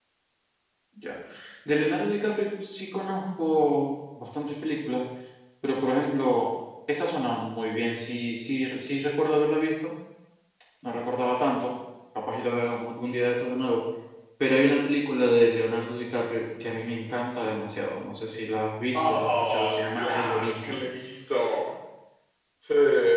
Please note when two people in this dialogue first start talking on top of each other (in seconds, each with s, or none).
18.9 s